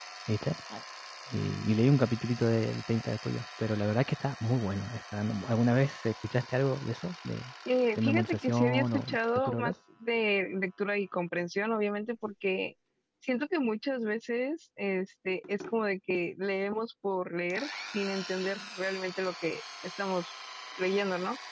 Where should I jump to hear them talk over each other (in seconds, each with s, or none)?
8.0 s